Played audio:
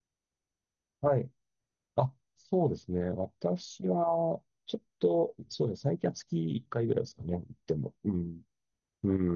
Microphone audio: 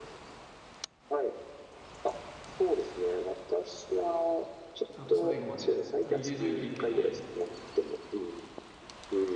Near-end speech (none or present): present